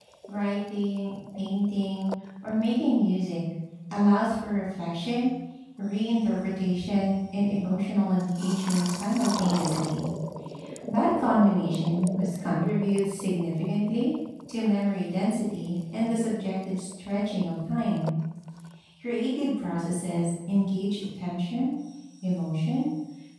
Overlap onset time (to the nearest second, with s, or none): none